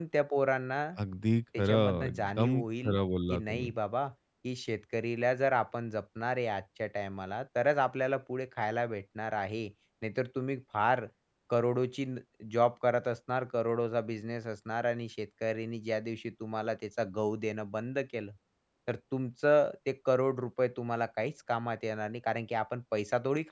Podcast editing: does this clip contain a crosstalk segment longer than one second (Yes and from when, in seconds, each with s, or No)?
Yes, from 1.6 s